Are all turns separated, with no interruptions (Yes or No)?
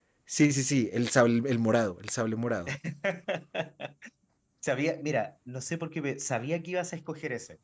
Yes